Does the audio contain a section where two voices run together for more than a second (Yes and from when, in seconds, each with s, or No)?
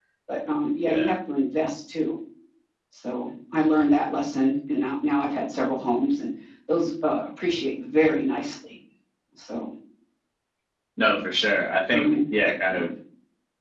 No